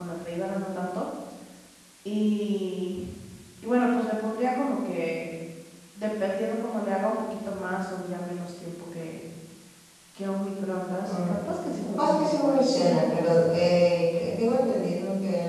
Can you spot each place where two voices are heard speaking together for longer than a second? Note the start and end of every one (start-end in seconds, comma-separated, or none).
11.8-13.5